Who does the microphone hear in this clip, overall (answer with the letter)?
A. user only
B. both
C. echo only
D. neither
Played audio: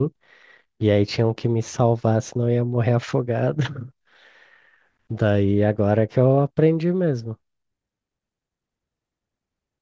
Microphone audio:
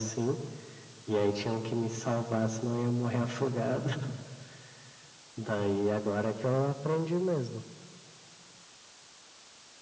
C